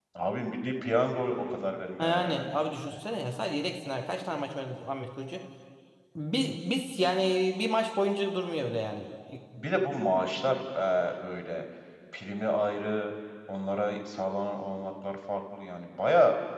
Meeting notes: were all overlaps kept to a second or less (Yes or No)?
Yes